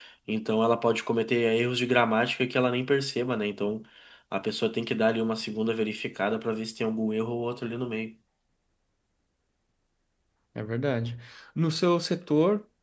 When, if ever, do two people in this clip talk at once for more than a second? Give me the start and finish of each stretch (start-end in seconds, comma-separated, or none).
none